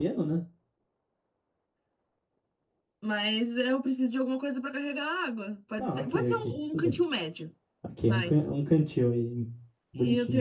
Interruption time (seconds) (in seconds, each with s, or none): 5.8 s